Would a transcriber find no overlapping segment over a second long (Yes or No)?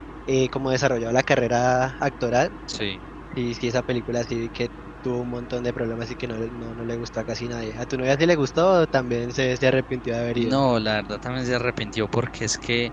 Yes